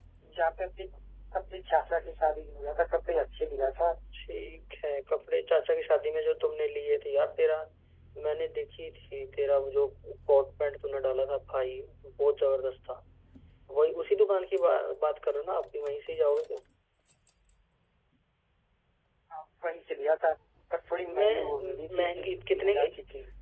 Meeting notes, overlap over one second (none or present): present